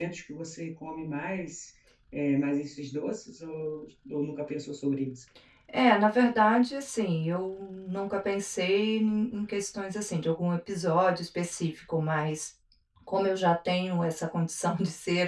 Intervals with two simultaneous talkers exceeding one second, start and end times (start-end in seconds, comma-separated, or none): none